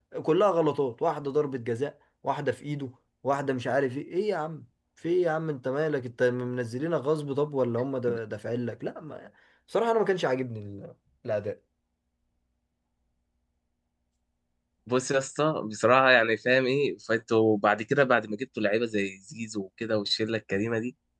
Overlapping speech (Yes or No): No